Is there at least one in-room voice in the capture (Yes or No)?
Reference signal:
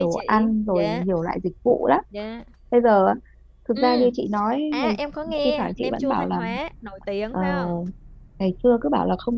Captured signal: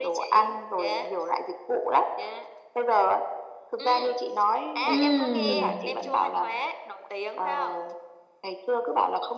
Yes